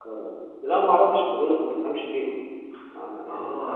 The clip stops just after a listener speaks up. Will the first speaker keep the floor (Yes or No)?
No